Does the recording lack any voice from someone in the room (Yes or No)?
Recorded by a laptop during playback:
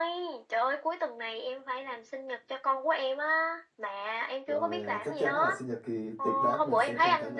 No